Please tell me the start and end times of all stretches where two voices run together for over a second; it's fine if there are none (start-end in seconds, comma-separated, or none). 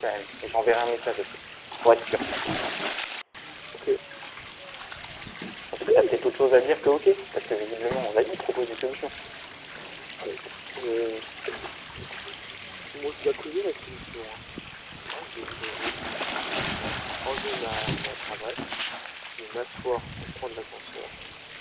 none